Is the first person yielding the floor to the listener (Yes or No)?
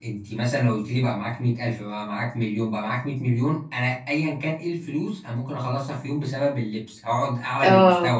No